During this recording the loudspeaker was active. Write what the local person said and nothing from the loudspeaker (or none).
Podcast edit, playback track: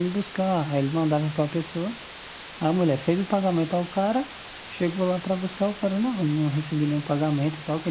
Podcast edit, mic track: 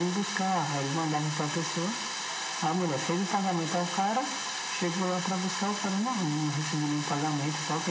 none